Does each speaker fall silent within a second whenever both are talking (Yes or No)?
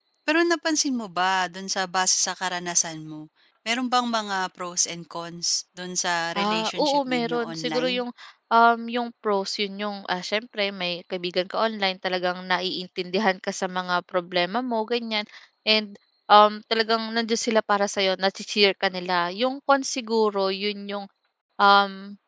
No